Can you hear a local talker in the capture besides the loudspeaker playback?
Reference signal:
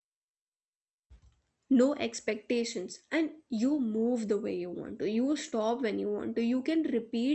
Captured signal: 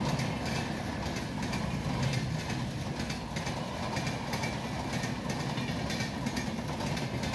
No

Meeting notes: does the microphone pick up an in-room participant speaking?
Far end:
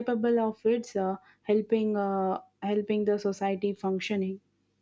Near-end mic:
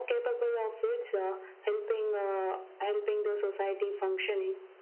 No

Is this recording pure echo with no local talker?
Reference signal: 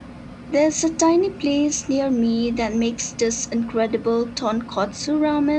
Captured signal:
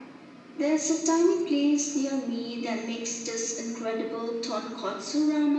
Yes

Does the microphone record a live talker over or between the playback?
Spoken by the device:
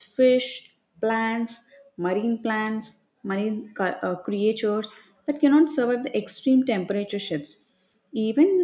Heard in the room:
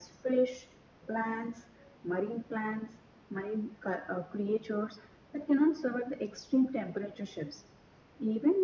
No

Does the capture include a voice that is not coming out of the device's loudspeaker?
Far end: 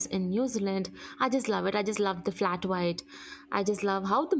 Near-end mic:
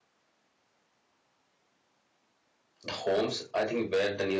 Yes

